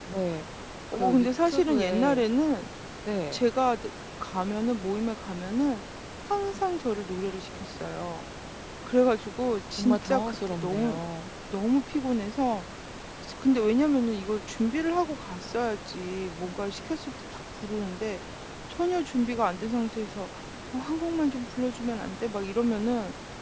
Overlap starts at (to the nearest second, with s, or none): 1 s